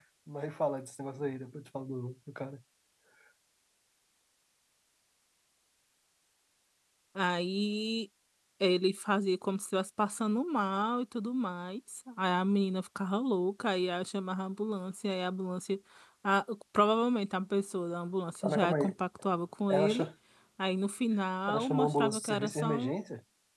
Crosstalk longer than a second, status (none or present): present